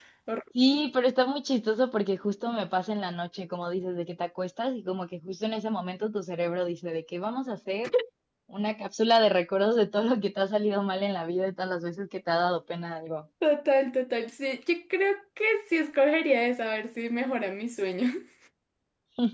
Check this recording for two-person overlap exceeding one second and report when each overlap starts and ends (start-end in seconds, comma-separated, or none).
none